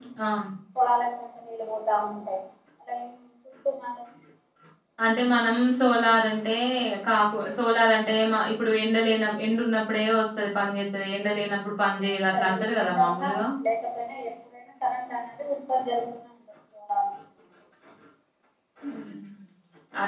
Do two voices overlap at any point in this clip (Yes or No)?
Yes